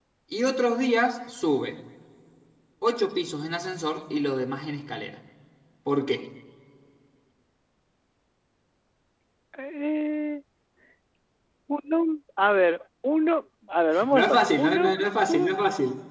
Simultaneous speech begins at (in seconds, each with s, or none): 13.9 s